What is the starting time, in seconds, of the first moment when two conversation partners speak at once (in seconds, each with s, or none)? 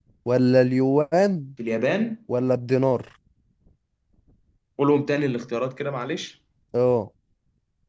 none